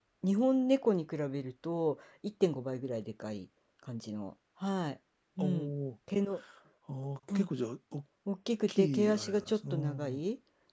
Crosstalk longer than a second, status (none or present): present